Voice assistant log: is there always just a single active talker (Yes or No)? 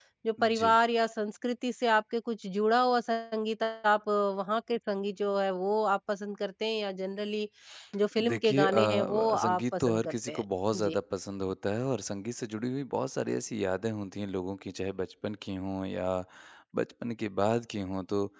No